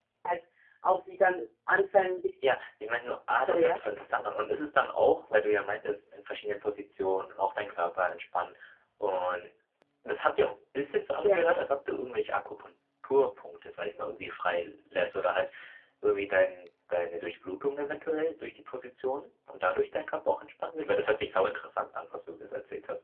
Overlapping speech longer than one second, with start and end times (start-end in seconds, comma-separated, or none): none